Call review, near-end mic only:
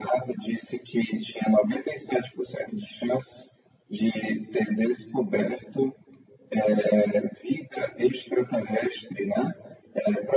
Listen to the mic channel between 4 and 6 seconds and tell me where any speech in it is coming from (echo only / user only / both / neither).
echo only